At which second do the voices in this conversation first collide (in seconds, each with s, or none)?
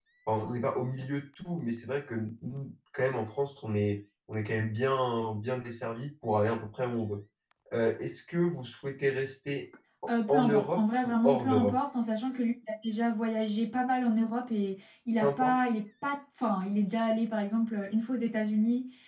10.1 s